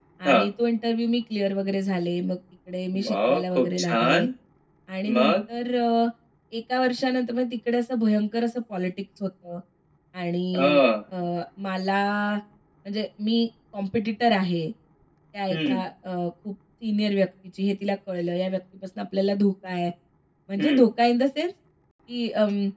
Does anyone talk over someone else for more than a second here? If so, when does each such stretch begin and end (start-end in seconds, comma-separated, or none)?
3.0-4.3